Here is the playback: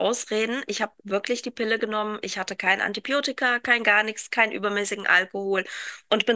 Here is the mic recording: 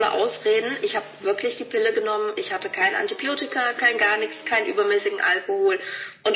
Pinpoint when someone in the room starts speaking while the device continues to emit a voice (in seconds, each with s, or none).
none